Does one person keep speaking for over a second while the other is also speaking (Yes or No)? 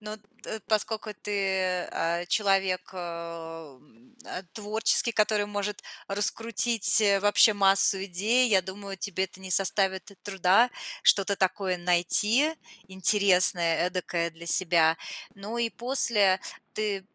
No